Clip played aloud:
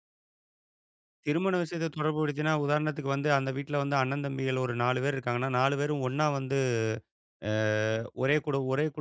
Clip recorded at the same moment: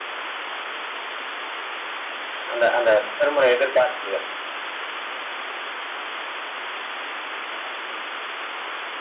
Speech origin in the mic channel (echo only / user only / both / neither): user only